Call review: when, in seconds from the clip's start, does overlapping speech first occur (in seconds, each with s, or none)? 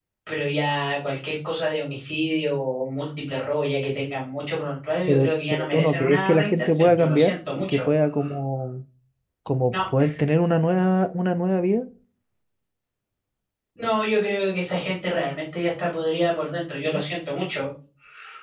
5.1 s